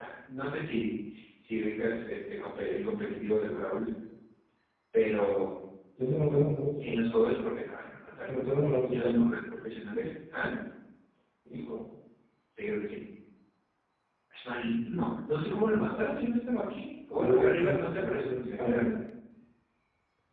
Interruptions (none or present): present